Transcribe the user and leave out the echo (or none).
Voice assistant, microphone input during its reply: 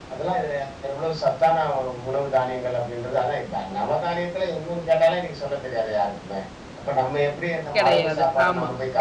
கிடையாது. ஆமா.